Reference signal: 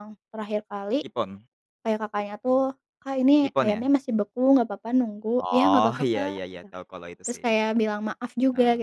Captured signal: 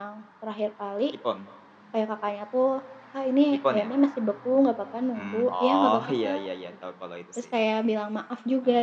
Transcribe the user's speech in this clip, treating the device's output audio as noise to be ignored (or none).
Mhm.